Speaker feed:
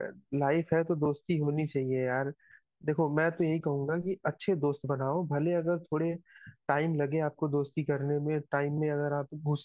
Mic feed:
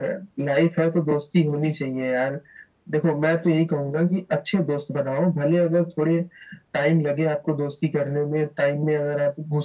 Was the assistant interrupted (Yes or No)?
No